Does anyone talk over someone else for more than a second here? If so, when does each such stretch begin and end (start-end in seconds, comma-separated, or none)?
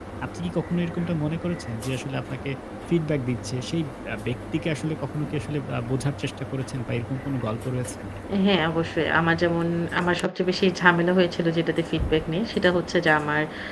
none